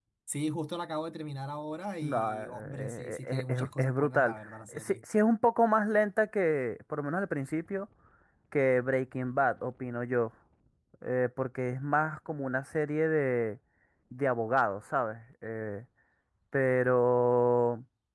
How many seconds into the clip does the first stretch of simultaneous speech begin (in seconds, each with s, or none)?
2.0 s